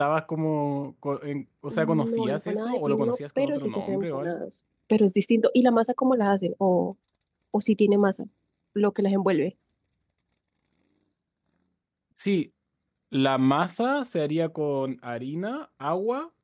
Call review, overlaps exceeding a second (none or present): present